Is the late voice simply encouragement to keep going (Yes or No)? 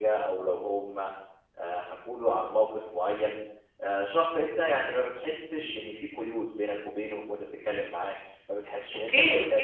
No